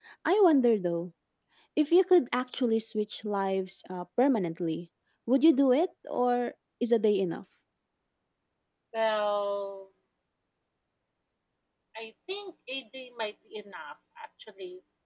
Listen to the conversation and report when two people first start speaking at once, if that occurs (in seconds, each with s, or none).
none